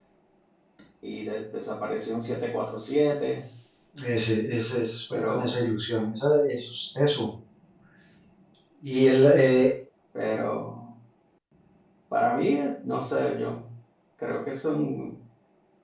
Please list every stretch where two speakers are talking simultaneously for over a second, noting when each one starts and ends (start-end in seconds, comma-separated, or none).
none